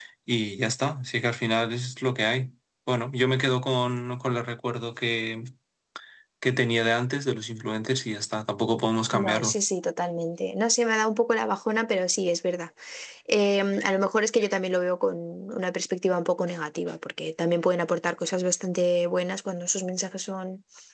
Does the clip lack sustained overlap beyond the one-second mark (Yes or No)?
Yes